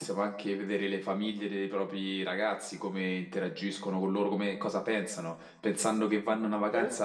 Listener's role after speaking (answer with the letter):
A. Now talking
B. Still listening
B